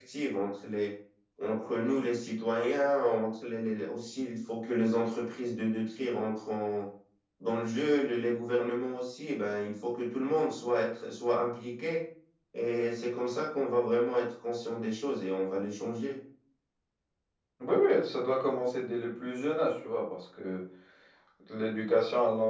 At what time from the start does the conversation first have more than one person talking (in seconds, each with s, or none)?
none